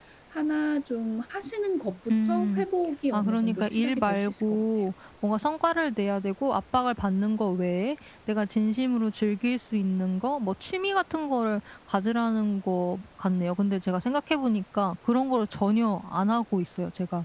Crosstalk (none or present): present